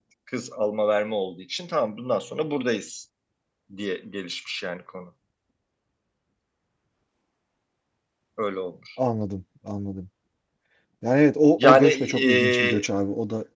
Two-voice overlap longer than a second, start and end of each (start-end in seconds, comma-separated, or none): 11.6-12.8